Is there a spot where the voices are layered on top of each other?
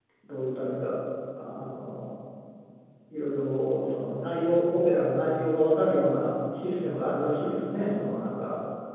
No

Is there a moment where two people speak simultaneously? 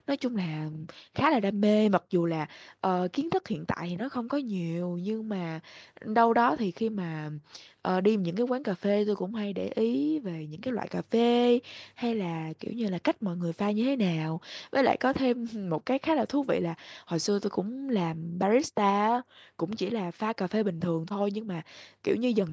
No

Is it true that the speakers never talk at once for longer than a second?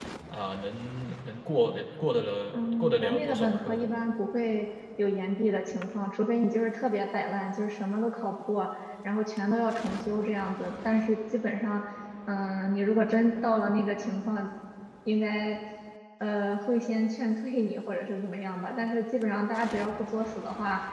No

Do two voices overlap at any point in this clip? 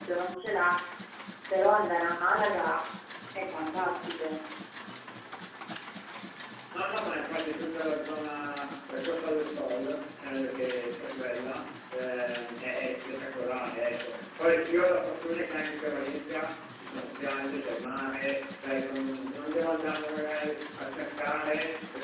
No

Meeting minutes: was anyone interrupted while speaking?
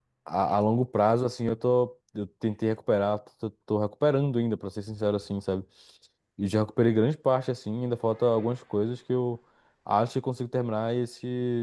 No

